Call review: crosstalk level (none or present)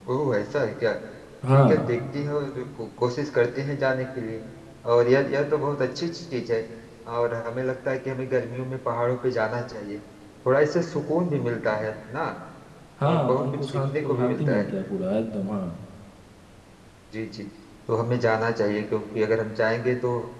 present